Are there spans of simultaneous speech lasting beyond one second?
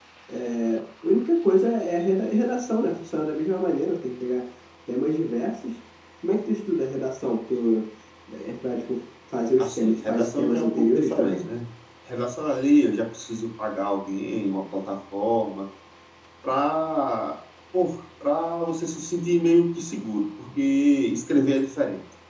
Yes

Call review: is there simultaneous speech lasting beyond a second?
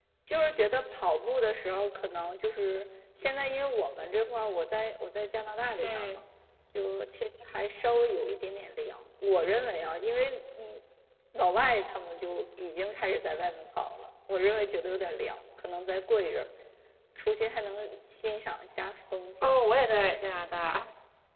No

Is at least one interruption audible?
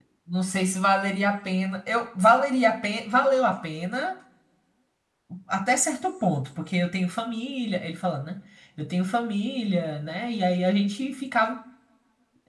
No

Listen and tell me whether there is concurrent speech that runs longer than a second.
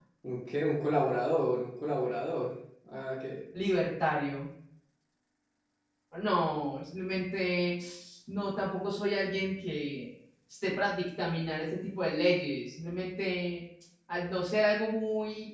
No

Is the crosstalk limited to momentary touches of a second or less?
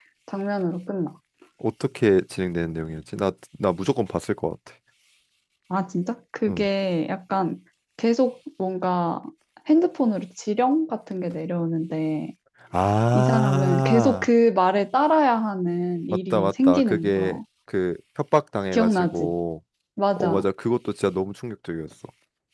No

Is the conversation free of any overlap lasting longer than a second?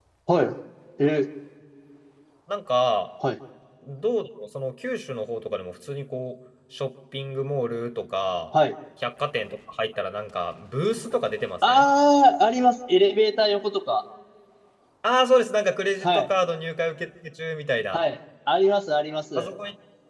Yes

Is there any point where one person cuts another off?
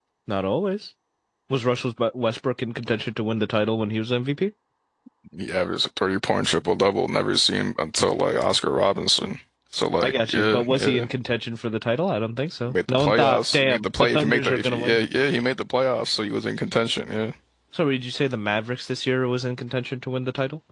Yes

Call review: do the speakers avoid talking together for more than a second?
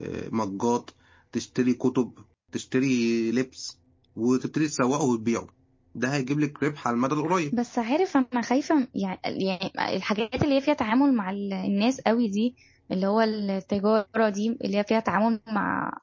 Yes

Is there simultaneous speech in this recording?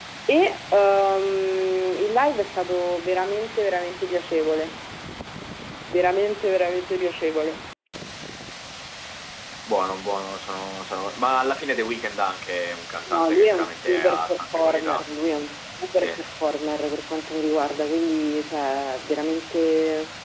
Yes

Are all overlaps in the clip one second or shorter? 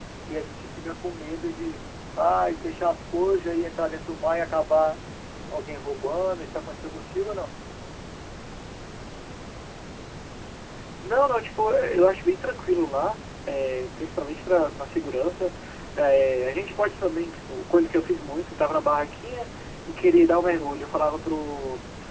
Yes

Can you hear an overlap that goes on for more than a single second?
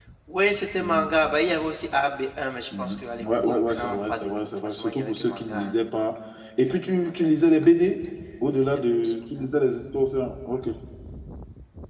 Yes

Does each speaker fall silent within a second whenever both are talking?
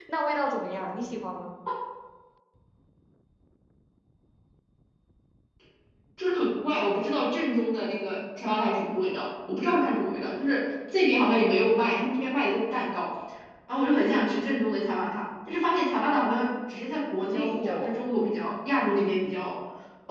No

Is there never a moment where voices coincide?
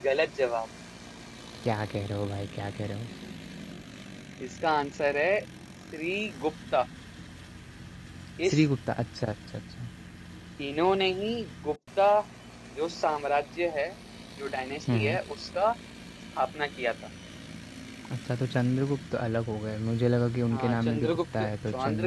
No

